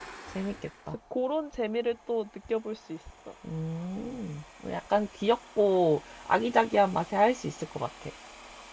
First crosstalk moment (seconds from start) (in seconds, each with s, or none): none